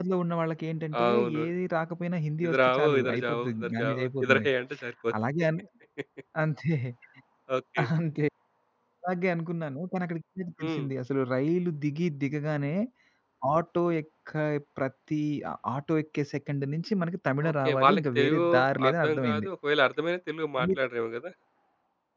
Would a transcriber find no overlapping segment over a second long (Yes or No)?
No